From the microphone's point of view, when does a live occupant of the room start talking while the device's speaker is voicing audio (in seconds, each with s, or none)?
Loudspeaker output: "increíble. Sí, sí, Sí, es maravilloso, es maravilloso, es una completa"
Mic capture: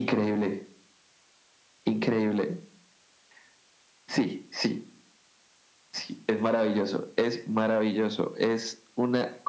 none